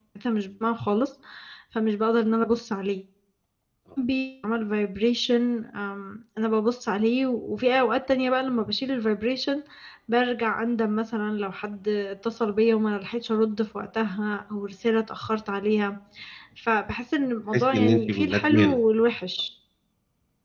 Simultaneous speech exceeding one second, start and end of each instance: 17.5-18.7

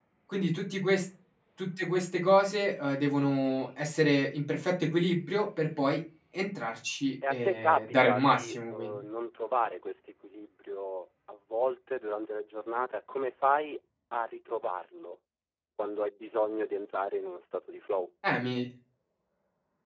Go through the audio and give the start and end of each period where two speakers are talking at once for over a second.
7.3-9.0

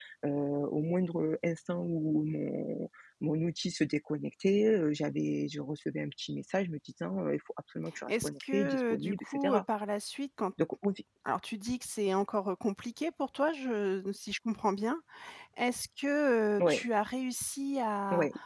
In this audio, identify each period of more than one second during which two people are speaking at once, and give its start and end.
8.1-9.6

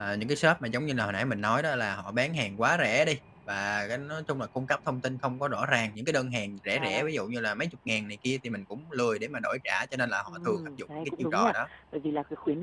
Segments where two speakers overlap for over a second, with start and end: 10.3-11.5

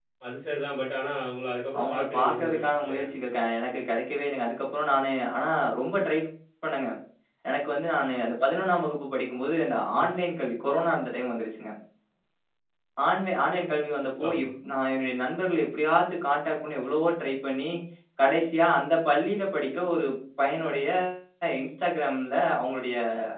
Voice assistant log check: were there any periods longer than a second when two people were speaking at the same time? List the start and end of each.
1.8-3.0

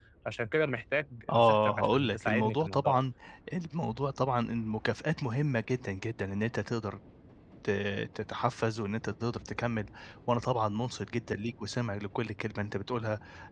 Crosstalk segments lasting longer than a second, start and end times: 1.3-3.0

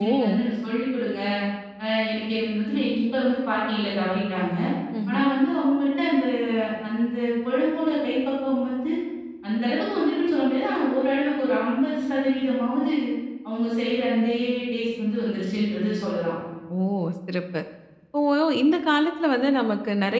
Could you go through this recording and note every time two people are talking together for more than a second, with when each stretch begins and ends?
none

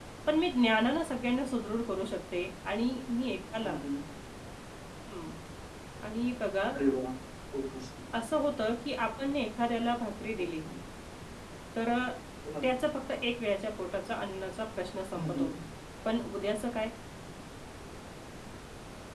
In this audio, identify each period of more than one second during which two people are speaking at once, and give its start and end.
none

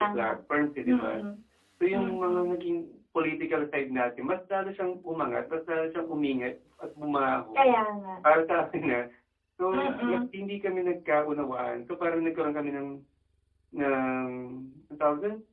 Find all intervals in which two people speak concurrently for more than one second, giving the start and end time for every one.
none

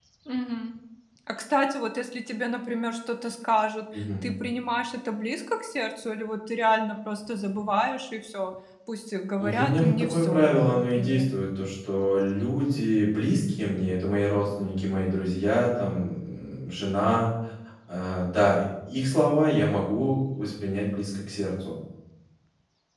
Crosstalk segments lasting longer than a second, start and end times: 9.4-11.3

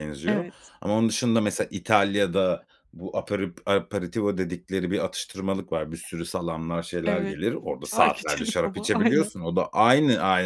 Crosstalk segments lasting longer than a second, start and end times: 7.9-9.3

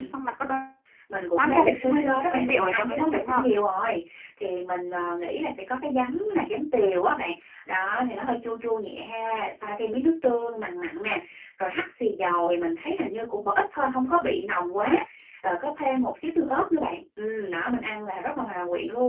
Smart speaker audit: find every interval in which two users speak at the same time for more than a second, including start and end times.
1.4-3.5

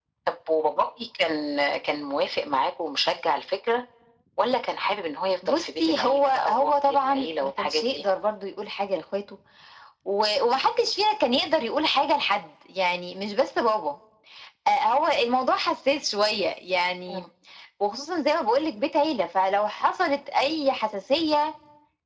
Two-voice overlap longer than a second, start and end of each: 5.5-8.0

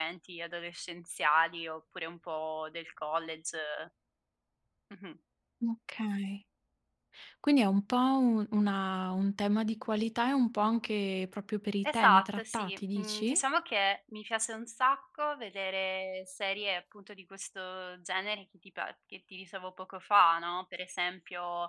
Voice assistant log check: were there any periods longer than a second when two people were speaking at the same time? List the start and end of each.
11.9-13.4

